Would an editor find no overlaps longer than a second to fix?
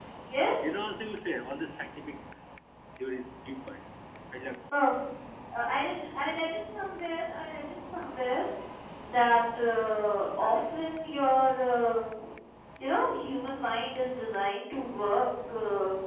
Yes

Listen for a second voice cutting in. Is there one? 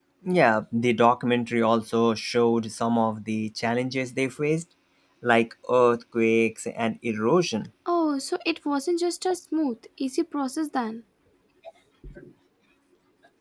No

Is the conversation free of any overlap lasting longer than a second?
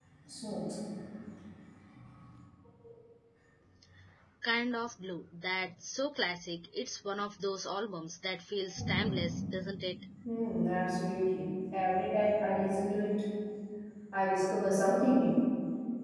Yes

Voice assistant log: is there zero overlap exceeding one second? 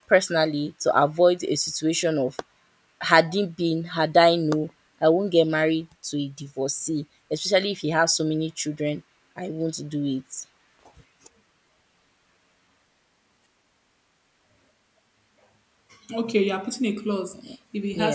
Yes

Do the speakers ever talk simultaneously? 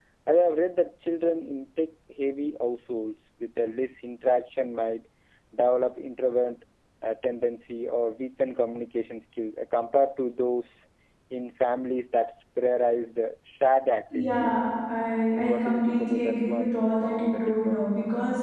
Yes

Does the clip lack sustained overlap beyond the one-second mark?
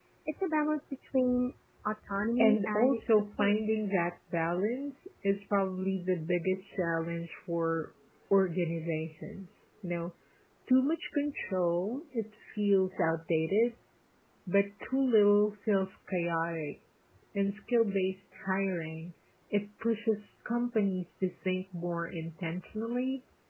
No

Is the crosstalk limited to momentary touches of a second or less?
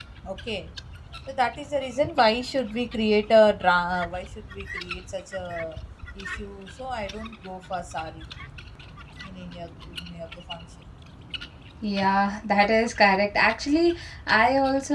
Yes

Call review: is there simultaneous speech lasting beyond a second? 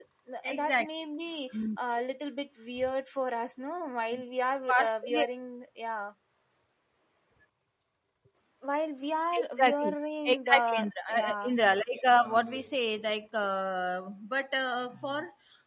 Yes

